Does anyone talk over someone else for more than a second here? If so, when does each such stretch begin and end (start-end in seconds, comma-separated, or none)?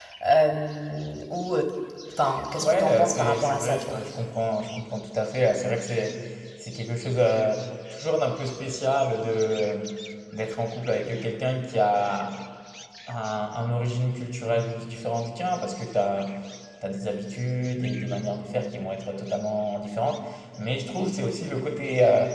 2.6-3.9